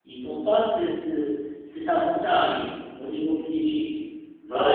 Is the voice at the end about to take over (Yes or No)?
Yes